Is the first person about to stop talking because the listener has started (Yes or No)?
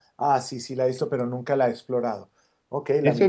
Yes